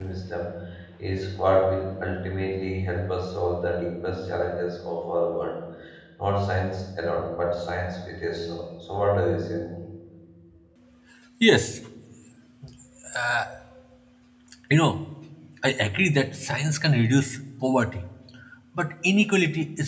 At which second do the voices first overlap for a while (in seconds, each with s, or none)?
none